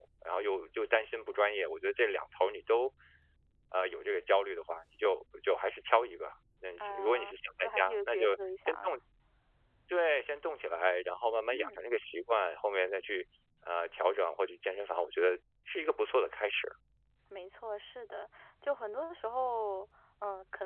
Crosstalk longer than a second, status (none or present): present